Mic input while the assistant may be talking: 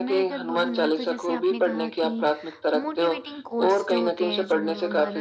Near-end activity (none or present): present